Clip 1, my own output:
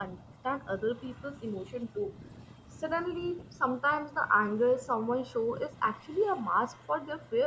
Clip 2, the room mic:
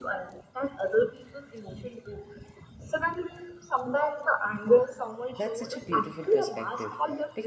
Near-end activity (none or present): present